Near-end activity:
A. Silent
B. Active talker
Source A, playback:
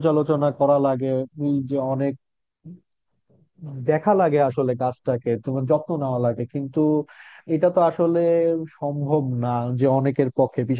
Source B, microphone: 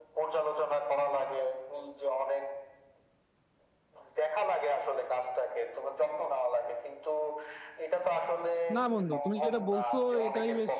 B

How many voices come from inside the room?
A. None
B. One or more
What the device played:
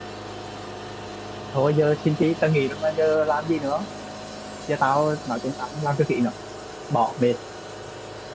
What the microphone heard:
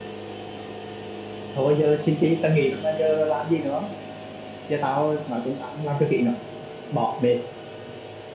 A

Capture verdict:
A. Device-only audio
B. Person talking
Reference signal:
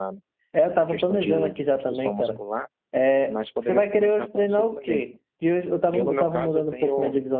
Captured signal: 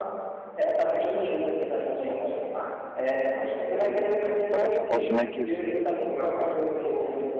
B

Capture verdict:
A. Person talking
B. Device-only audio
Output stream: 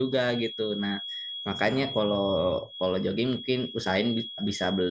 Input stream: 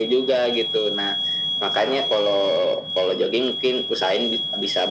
B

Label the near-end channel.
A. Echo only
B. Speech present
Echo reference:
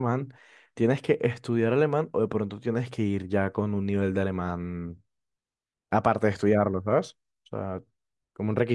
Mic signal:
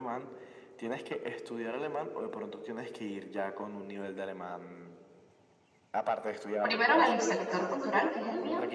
B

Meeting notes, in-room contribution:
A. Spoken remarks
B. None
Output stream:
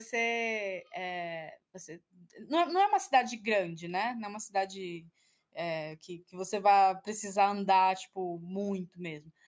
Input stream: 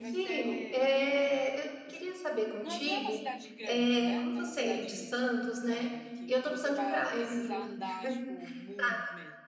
A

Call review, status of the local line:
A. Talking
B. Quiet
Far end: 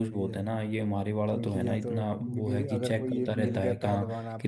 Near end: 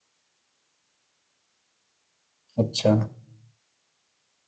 A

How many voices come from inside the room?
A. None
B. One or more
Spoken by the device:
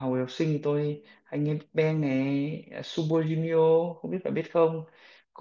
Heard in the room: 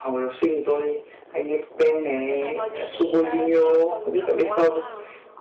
B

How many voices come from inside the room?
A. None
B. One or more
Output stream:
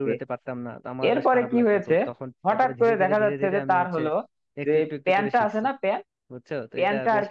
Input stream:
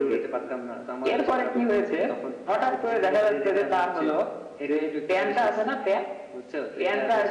A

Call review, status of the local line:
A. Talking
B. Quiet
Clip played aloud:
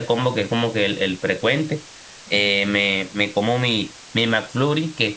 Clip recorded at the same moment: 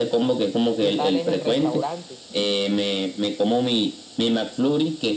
A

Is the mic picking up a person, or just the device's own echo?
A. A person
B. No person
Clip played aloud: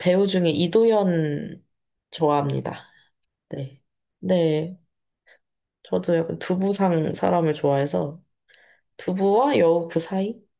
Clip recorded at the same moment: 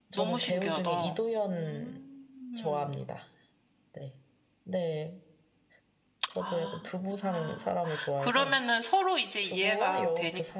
A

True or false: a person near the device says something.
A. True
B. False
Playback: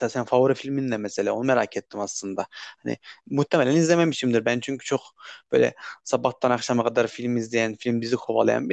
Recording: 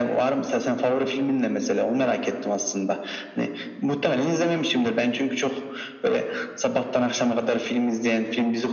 B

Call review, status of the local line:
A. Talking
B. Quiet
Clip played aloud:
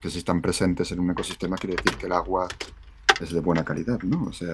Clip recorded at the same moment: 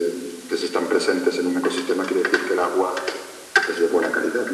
B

